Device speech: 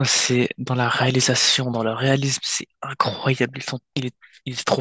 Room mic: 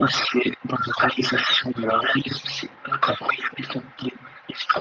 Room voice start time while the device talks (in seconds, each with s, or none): none